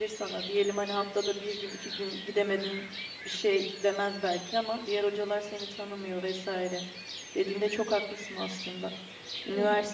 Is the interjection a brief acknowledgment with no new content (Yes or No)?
Yes